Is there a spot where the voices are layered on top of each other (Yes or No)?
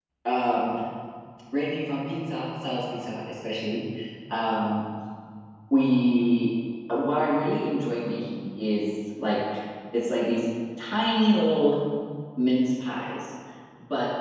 No